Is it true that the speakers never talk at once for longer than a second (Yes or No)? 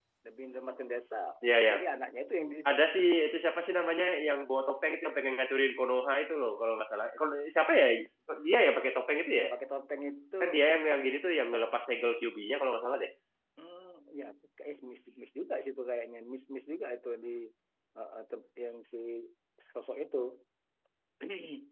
Yes